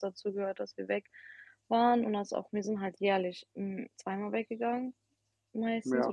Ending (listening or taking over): listening